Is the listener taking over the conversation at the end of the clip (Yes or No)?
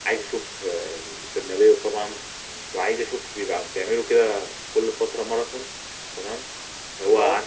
No